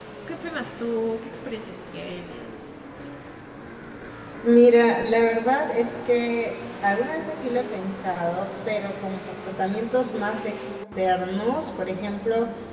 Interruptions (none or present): none